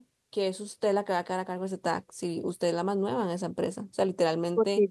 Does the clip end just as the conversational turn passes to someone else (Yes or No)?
No